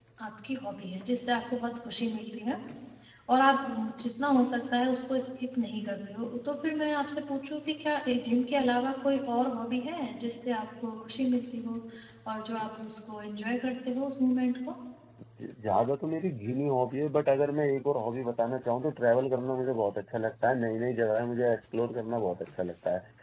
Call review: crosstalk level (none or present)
none